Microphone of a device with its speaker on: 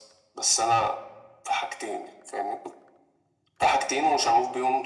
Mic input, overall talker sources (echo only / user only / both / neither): echo only